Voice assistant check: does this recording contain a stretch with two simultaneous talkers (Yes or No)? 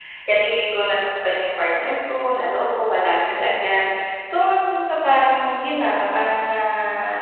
No